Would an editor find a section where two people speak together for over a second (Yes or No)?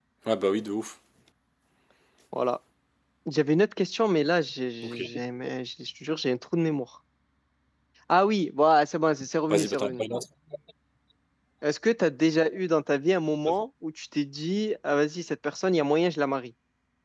No